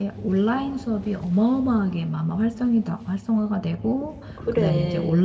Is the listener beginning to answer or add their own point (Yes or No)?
No